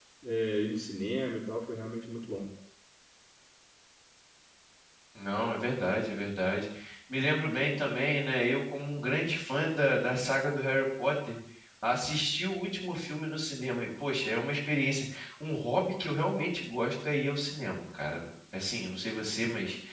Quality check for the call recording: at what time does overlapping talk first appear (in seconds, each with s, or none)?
none